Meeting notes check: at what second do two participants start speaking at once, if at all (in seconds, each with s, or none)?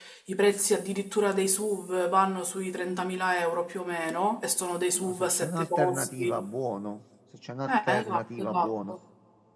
5.0 s